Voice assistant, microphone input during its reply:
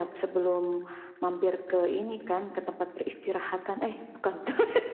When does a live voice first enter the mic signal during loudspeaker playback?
none

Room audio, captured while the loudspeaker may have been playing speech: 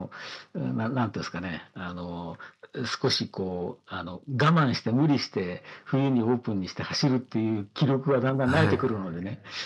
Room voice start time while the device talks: 8.4 s

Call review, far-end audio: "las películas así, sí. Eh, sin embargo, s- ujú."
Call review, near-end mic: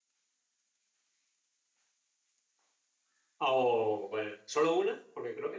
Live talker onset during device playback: 3.4 s

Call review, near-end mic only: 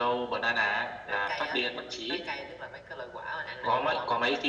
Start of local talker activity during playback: none

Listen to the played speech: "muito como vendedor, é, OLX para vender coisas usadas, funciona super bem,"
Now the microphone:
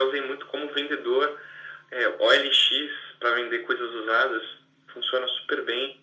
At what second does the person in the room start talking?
none

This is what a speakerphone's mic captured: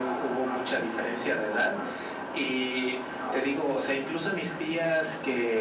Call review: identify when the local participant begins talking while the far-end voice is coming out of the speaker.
none

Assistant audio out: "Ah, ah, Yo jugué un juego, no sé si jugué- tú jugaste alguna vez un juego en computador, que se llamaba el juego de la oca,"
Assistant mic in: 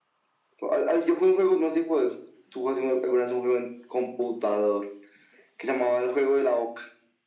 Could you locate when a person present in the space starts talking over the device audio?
none

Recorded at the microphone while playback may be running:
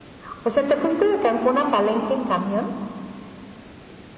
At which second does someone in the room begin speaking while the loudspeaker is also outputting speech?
none

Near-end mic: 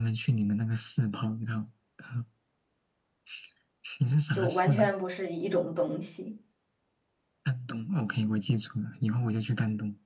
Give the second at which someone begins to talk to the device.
4.3 s

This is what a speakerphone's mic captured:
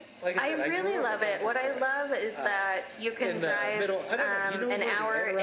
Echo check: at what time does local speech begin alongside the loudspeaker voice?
none

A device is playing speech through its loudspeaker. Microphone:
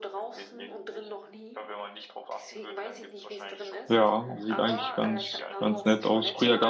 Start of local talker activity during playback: 3.9 s

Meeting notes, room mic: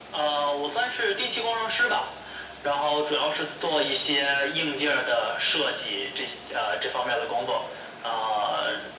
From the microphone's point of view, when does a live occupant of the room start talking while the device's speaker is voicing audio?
none

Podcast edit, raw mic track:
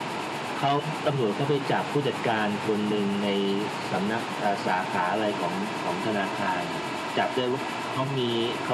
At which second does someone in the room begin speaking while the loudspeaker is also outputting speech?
none

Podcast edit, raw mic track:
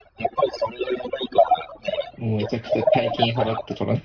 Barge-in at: 2.1 s

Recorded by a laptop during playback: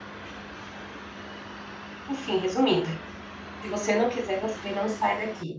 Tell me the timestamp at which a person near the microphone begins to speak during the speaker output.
2.1 s

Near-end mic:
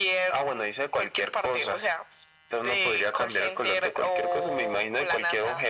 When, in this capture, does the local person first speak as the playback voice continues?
none

